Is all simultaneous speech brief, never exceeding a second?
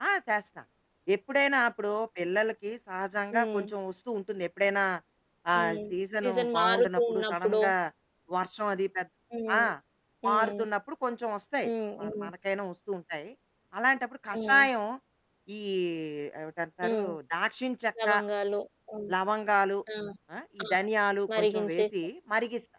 No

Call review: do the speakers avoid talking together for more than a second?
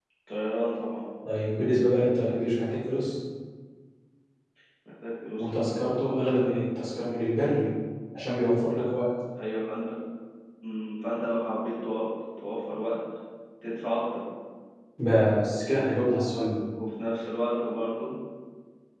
Yes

